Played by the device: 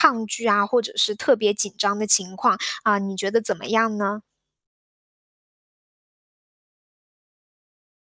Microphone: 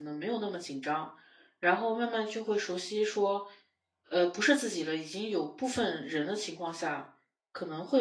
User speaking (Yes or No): Yes